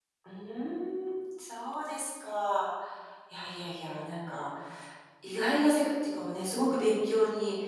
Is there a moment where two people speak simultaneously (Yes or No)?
No